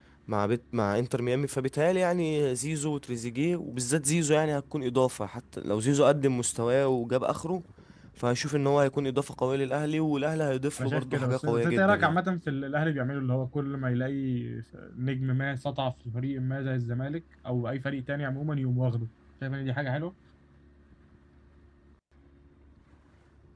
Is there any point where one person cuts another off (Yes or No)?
Yes